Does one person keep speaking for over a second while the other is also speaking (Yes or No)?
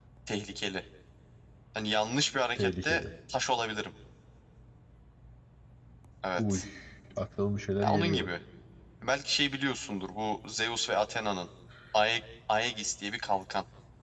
No